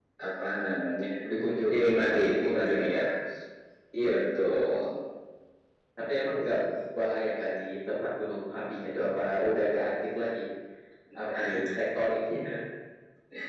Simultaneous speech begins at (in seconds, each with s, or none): 1.7 s